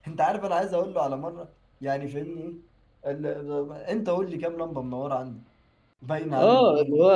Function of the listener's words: taking over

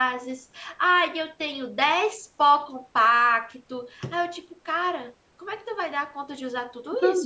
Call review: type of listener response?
taking over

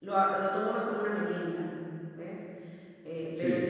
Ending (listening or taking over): listening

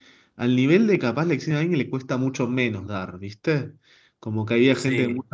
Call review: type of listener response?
listening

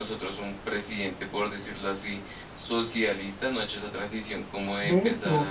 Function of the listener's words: taking over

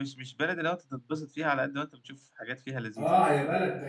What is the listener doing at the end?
taking over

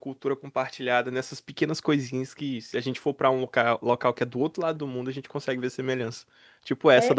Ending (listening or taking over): taking over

